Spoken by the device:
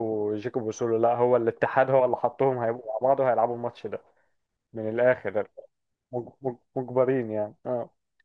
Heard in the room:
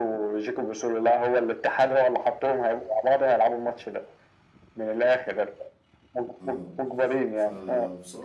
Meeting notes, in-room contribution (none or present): present